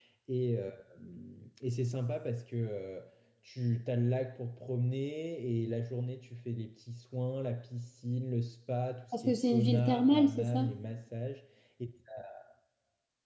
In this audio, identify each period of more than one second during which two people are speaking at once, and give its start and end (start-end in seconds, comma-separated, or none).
9.1-10.7